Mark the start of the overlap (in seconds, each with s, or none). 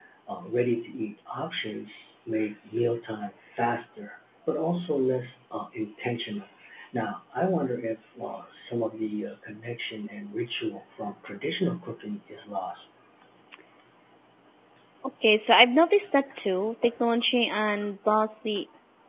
none